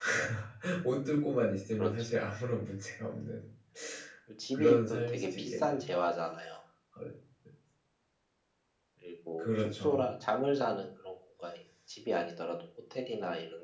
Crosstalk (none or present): present